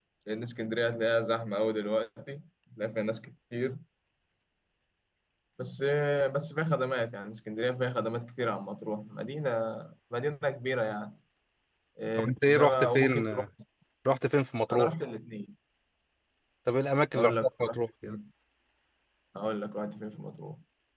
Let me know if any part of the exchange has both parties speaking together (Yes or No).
Yes